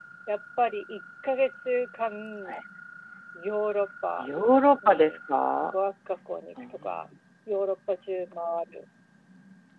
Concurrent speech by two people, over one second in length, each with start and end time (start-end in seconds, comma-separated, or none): none